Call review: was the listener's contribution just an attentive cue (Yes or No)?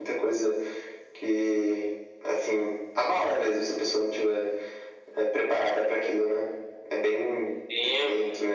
No